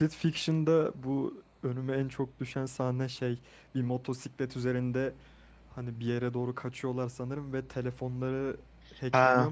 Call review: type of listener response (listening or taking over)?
taking over